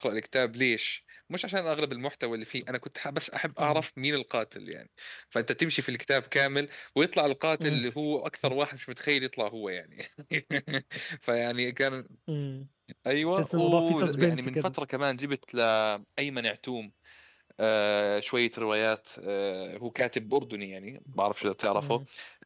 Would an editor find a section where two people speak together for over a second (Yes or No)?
Yes